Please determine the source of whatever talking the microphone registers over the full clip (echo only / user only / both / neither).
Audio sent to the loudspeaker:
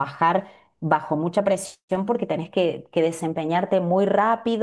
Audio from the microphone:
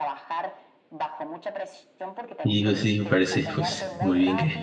both